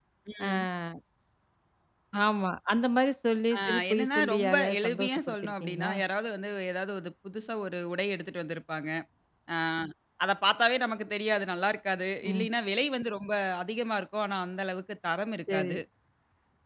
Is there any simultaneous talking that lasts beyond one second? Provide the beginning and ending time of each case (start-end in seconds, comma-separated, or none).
3.6-5.9